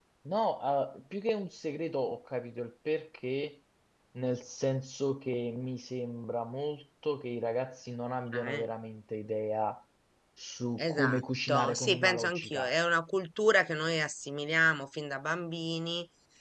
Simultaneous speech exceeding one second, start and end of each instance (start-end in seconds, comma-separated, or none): 10.8-12.7